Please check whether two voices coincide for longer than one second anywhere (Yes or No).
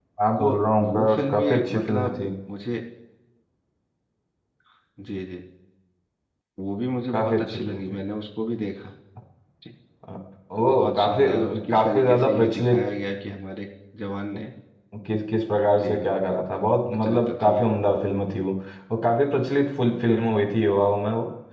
Yes